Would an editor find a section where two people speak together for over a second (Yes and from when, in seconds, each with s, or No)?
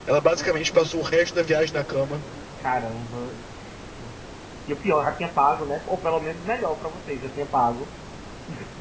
No